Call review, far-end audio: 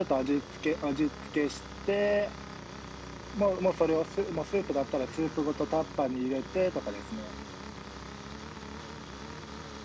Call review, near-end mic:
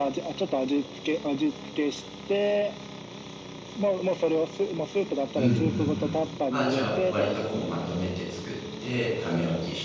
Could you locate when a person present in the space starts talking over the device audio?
5.4 s

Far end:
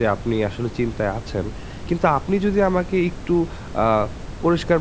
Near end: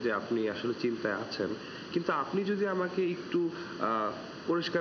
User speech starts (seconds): none

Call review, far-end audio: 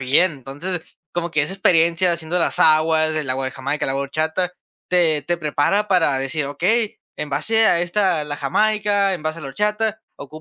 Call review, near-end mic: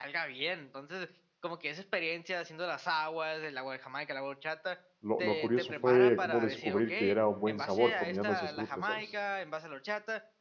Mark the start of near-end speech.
5.0 s

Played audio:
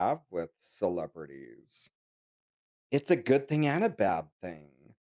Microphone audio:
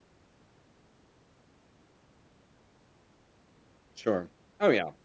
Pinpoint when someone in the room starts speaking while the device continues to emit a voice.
3.9 s

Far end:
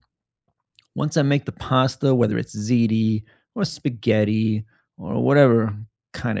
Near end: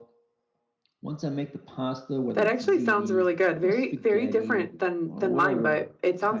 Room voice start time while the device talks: 2.3 s

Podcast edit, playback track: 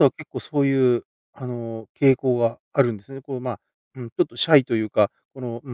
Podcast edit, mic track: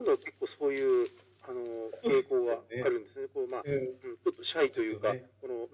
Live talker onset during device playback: 2.0 s

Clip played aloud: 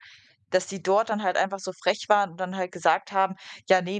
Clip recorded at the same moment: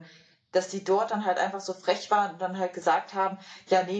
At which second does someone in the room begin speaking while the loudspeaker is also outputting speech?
none

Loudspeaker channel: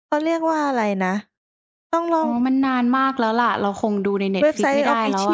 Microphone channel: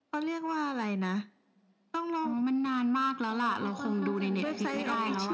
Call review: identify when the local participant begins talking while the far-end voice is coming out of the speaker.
3.3 s

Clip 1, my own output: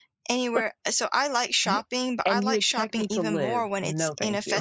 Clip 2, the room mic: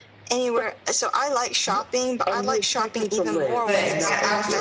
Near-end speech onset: 3.6 s

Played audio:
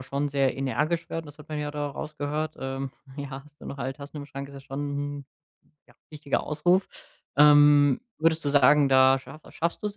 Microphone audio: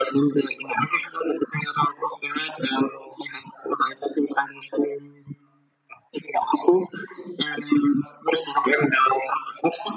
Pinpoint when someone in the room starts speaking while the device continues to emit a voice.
none

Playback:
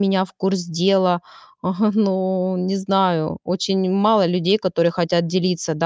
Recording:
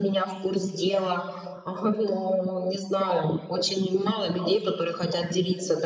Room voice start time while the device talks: none

